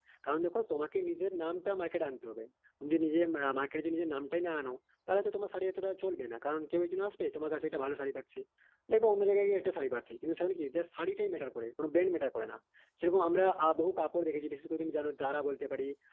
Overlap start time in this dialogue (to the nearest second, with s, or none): none